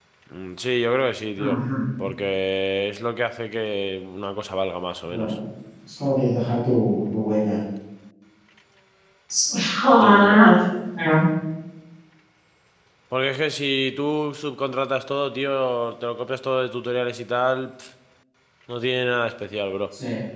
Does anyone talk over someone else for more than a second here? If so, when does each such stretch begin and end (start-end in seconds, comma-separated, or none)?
none